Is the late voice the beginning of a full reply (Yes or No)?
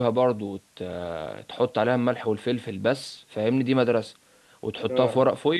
No